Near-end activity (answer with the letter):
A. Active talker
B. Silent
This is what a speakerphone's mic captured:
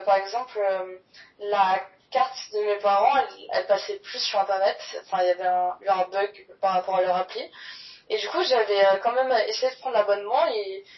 B